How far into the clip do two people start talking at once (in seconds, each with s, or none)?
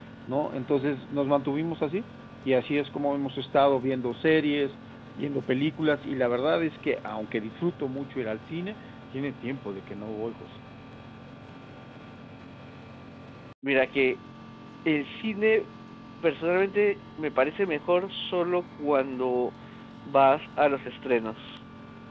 none